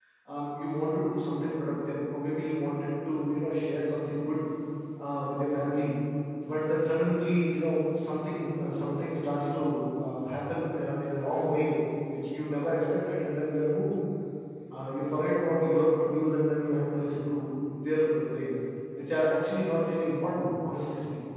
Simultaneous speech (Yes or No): No